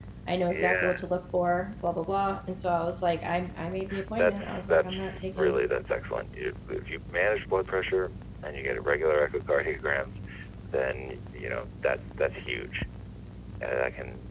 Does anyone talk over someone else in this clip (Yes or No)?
Yes